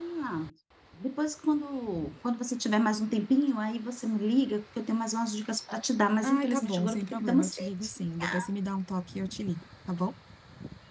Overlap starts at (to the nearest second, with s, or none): 6 s